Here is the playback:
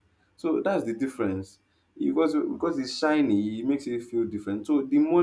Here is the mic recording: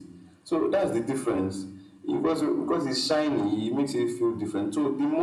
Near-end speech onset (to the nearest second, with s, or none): none